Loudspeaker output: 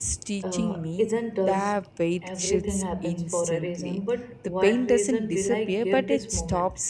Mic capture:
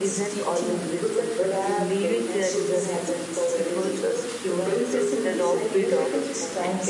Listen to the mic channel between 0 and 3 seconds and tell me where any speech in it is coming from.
both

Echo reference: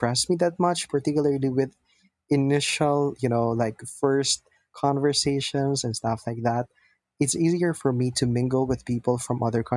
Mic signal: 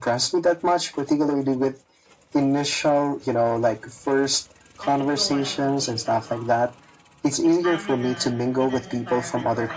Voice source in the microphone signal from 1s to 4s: echo only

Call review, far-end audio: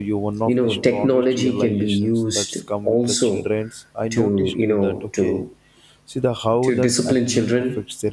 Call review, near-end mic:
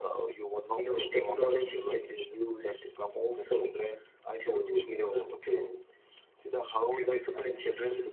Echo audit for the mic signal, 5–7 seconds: echo only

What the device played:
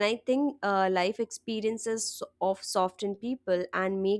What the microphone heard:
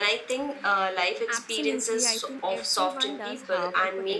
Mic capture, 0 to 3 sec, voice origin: both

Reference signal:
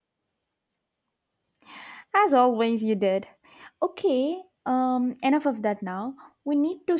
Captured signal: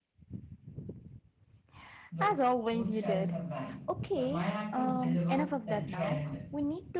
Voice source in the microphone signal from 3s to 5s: both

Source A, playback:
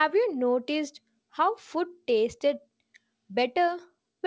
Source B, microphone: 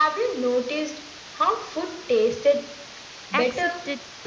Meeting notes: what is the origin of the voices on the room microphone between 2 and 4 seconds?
both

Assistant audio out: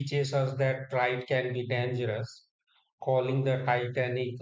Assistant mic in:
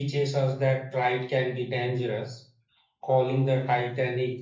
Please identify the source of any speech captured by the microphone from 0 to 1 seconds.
echo only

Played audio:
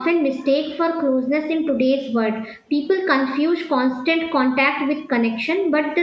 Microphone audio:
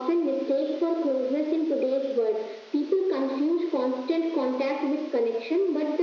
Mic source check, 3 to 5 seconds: echo only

